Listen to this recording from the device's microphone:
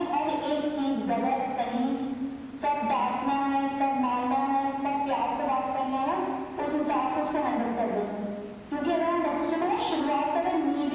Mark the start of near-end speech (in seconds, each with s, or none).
none